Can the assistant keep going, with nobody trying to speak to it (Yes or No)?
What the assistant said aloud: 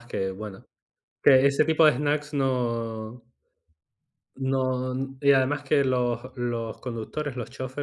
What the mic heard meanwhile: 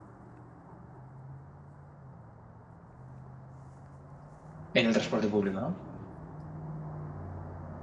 No